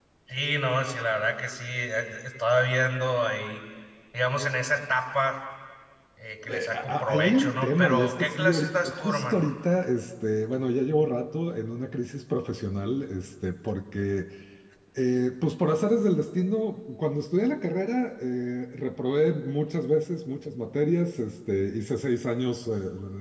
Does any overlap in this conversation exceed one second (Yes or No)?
Yes